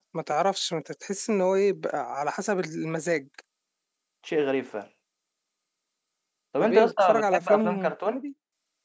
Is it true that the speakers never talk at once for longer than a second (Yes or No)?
No